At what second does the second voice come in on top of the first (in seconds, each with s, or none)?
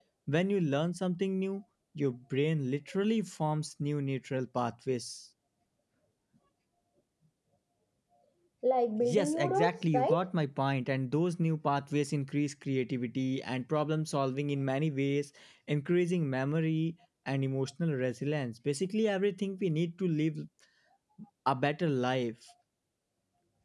9.0 s